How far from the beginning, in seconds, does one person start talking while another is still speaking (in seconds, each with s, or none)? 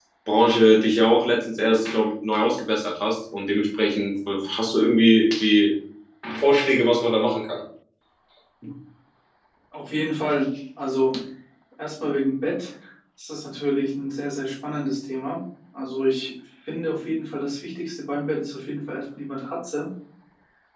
none